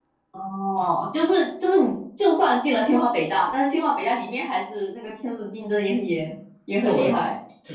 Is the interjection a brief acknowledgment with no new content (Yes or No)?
No